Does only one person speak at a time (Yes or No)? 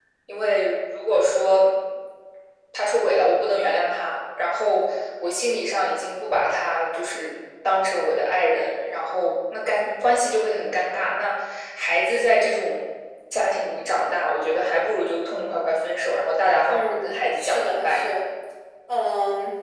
No